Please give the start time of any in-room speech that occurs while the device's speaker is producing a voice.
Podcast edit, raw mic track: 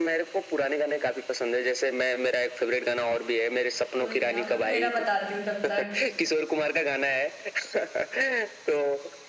4.0 s

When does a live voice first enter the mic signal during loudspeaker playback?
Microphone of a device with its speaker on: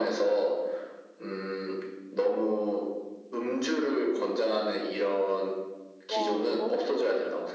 6.1 s

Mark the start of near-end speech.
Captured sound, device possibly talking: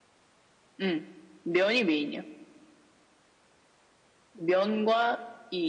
none

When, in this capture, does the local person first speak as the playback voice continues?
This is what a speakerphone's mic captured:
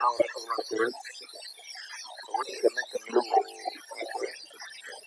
none

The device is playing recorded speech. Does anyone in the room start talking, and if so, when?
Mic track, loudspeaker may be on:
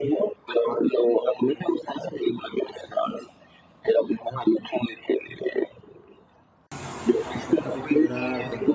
7.6 s

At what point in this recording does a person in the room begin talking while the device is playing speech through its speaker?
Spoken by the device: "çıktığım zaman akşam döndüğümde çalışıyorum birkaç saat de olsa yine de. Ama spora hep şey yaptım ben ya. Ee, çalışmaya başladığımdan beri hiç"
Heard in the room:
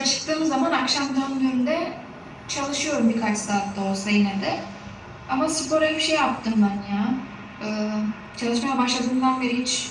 none

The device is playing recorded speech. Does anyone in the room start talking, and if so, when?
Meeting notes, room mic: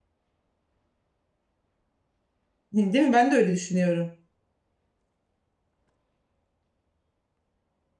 2.7 s

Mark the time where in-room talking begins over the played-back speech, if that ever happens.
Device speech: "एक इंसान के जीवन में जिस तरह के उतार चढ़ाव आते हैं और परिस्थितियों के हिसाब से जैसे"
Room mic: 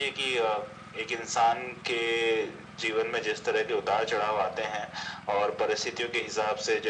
none

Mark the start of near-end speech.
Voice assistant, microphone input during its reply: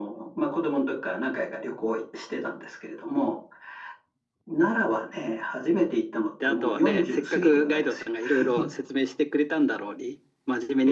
6.4 s

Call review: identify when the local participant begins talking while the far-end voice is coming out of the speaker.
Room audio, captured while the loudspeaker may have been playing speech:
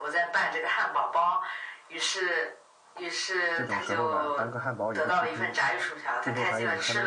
3.5 s

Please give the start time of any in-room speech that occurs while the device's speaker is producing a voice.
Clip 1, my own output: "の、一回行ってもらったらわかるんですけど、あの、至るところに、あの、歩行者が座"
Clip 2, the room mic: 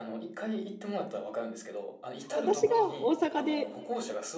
2.3 s

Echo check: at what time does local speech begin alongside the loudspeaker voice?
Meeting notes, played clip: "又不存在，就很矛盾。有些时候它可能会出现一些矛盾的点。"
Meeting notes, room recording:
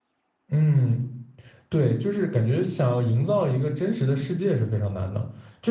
0.5 s

